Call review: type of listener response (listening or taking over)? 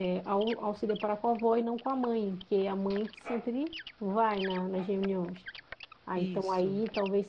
listening